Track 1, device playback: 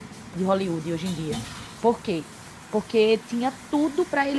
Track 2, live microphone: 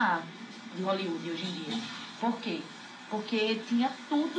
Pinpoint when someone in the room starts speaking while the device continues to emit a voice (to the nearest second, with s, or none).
none